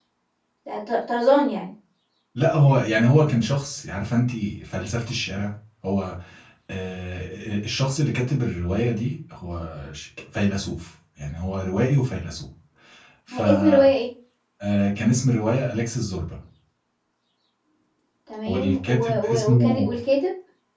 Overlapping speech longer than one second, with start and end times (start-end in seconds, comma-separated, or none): 18.5-19.9